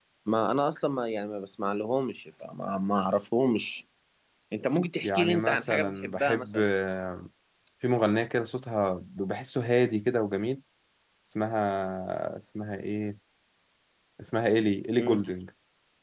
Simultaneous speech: Yes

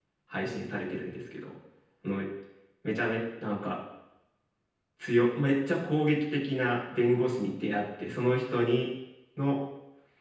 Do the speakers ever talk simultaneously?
No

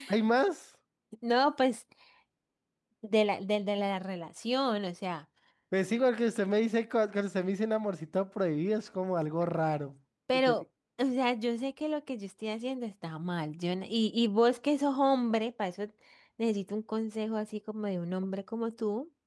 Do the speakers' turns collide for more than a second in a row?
No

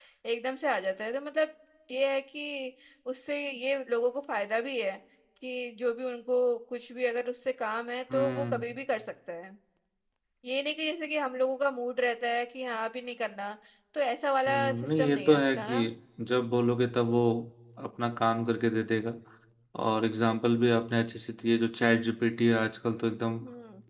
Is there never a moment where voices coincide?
No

